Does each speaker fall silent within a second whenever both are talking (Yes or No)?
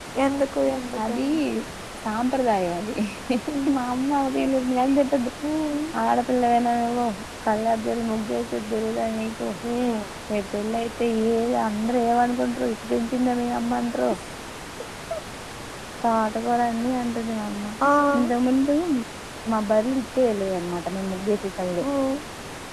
Yes